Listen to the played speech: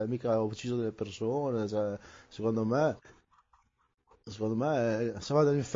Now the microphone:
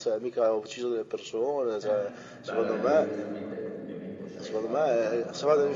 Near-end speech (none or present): present